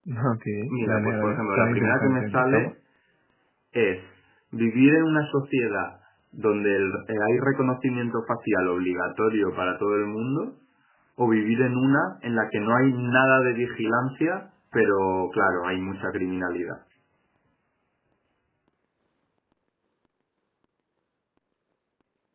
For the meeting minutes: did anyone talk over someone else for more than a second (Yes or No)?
Yes